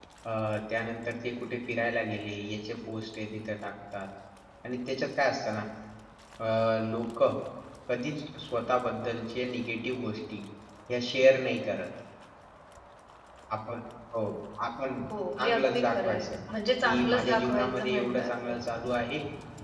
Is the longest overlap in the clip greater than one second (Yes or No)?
Yes